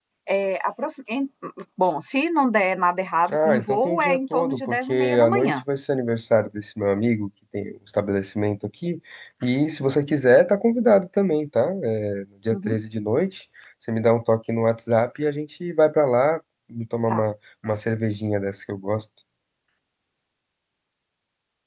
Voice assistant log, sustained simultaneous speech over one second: present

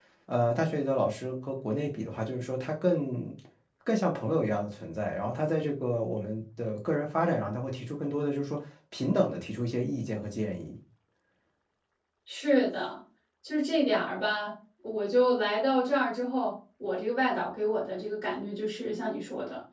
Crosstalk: none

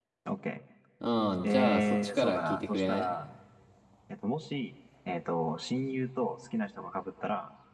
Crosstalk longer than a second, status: present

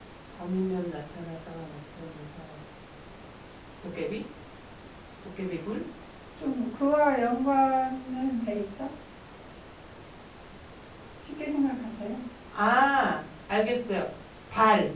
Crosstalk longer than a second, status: none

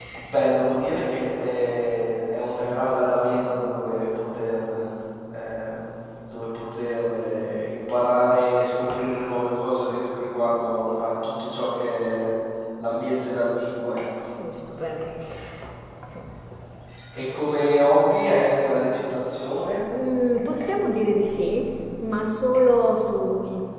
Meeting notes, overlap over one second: none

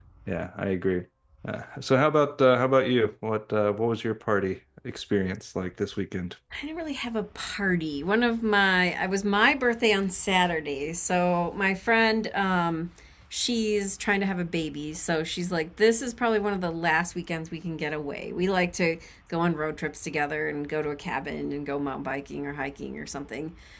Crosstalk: none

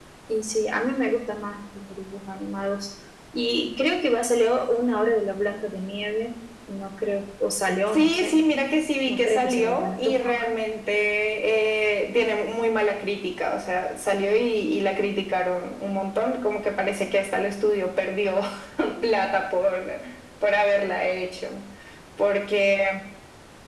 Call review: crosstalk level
present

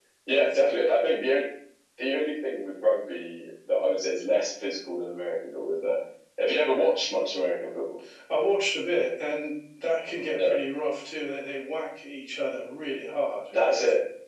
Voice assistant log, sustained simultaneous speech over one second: none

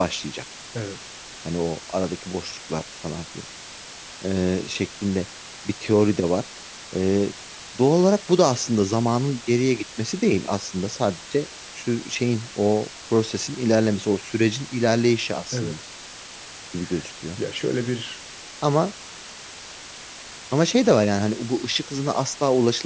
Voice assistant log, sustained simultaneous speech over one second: none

